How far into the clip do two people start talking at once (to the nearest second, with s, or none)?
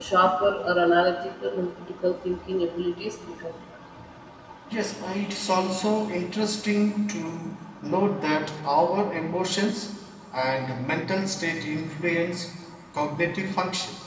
none